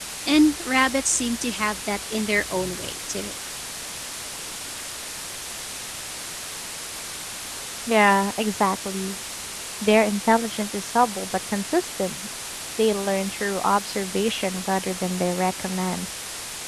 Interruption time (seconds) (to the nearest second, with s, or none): none